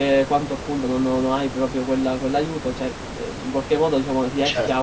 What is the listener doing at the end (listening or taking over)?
taking over